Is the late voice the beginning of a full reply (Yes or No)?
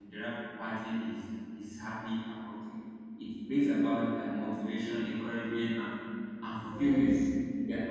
No